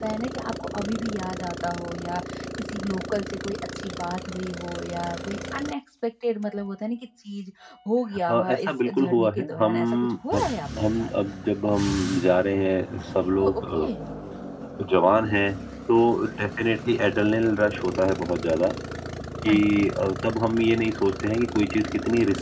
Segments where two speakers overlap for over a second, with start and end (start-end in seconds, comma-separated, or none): 8.3-10.4